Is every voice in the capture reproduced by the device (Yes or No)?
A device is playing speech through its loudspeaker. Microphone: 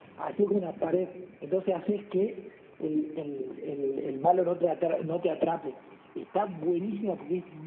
Yes